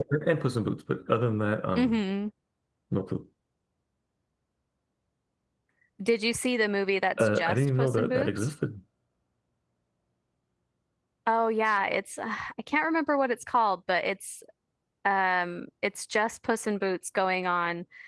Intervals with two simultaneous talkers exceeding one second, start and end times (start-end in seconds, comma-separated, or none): 7.2-8.5